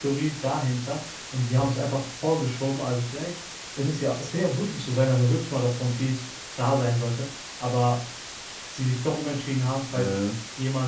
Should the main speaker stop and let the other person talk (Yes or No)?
No